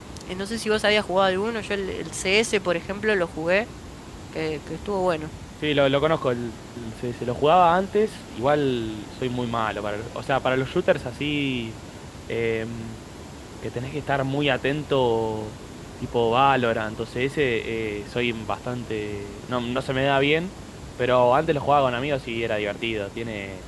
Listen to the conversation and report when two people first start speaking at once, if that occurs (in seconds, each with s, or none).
none